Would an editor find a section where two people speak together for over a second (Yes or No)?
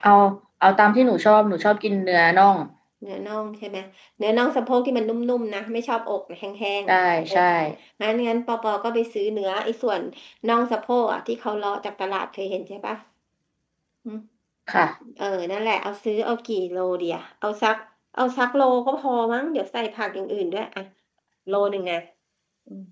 No